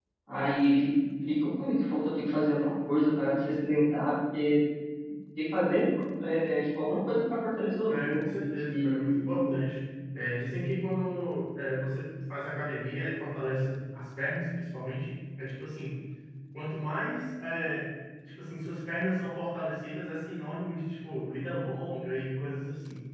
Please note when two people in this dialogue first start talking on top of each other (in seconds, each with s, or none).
7.9 s